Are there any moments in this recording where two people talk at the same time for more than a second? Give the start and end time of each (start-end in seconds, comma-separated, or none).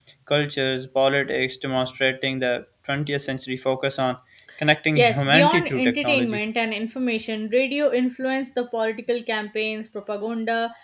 5.0-6.4